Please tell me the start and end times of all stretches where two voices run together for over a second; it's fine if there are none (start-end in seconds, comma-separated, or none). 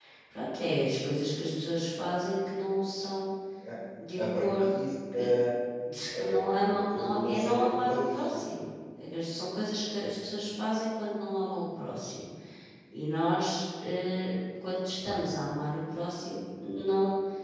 6.9-8.4